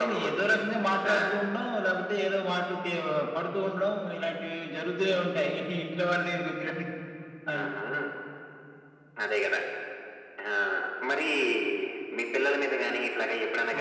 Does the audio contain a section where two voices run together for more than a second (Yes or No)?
No